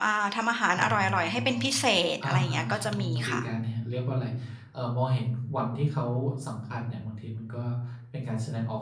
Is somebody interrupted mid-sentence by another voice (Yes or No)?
Yes